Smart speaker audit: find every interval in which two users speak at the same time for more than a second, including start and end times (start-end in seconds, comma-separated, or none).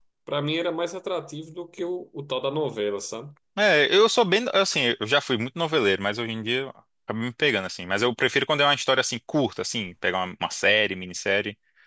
none